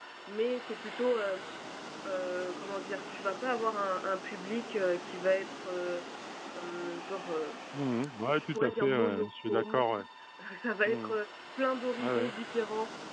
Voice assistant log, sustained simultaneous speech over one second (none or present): present